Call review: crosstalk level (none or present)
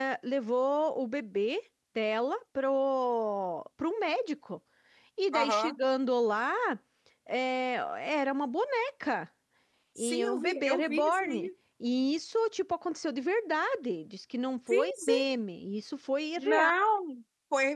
present